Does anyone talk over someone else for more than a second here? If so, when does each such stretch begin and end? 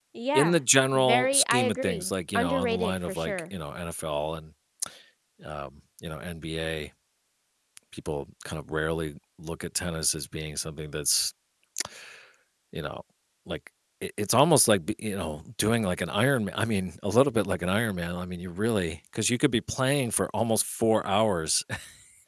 0.9-3.4

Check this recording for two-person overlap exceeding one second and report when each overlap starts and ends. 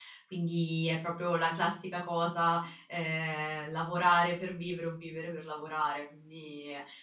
none

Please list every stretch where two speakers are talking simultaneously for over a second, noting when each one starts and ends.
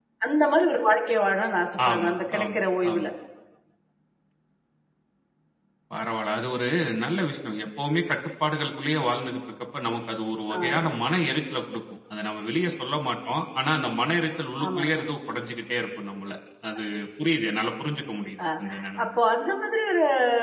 1.9-3.1

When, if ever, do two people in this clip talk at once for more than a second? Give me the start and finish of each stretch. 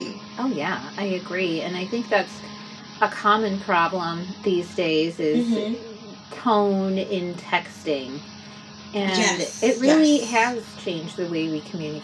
9.2-10.5

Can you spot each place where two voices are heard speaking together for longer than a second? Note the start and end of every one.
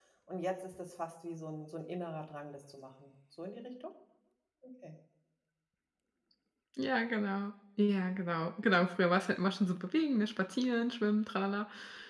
none

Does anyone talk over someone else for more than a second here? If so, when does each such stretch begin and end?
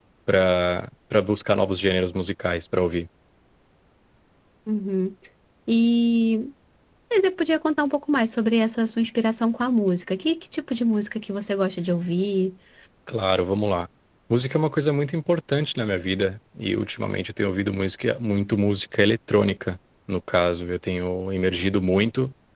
none

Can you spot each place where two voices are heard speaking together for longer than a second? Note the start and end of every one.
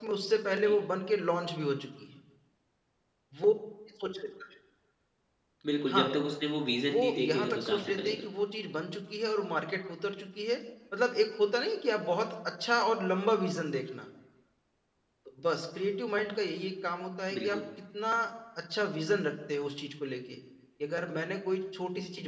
6.8-8.2

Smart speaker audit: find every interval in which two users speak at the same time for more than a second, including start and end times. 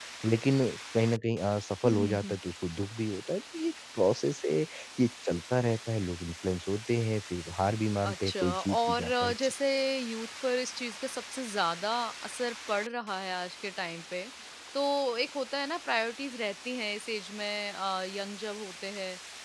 8.0-9.5

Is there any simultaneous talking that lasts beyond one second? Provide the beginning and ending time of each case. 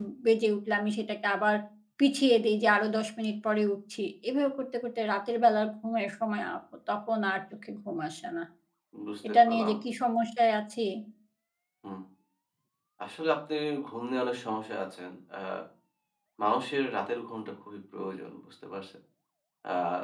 none

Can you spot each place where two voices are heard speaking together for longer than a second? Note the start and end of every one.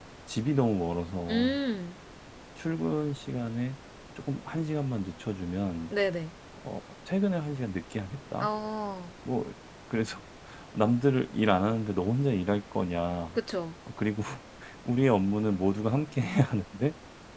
none

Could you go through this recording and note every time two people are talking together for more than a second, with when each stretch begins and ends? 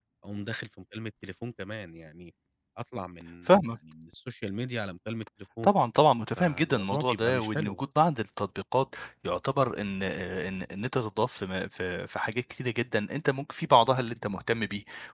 6.4-7.8

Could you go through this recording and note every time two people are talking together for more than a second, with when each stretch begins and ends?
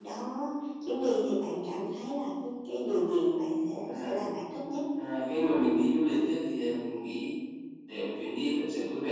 none

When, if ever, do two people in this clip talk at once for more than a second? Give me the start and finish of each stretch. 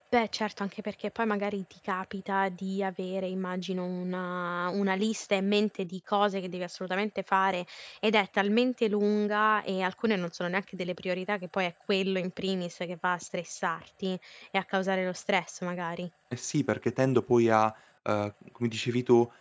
none

